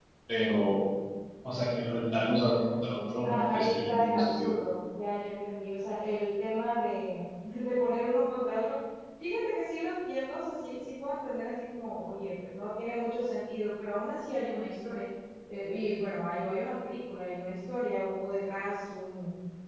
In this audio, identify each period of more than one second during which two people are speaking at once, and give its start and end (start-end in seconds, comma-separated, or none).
3.2-4.5